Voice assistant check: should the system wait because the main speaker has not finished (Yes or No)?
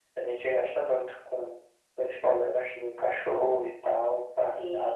No